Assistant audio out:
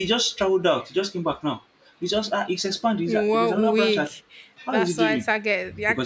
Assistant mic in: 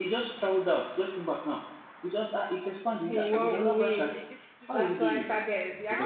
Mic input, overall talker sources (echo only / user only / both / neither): both